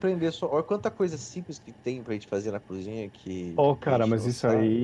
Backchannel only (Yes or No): No